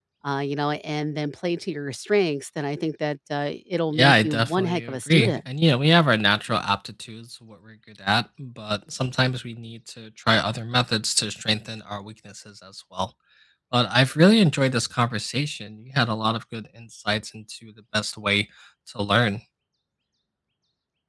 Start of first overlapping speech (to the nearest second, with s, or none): 4 s